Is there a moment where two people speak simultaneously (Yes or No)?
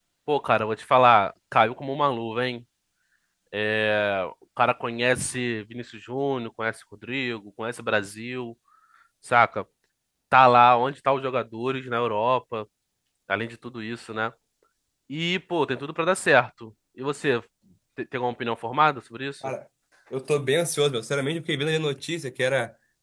No